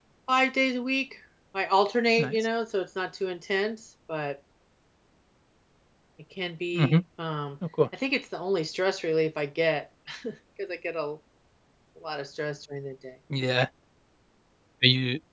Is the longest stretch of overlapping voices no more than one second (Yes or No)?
Yes